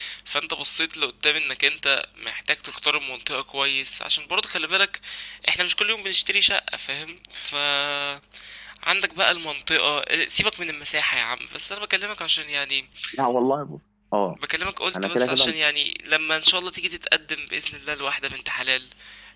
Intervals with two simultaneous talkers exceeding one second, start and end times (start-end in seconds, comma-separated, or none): none